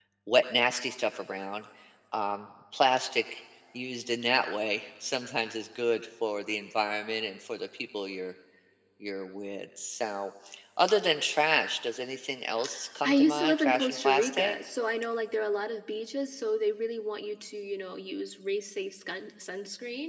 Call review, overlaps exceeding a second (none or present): present